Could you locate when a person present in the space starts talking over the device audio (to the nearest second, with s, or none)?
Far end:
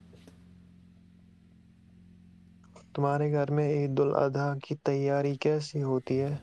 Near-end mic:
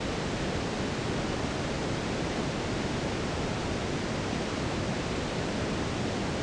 none